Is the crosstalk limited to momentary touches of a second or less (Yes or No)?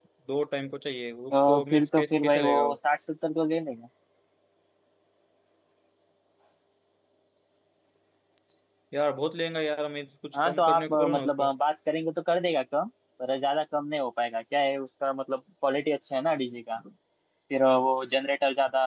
No